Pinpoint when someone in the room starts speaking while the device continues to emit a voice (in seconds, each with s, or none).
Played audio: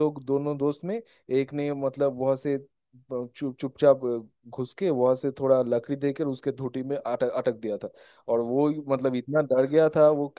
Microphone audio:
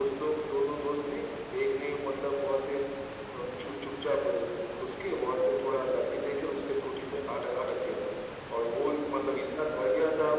none